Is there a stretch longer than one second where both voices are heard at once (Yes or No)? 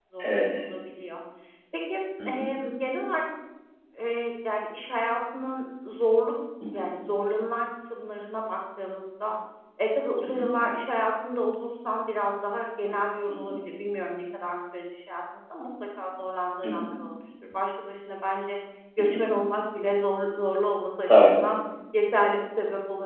No